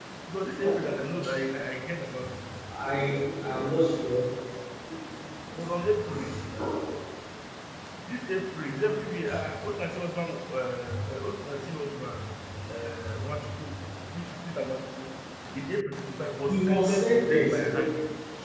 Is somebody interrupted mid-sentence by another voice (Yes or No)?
Yes